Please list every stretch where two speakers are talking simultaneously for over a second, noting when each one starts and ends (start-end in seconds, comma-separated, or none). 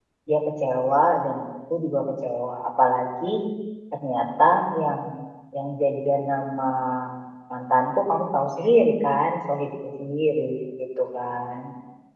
none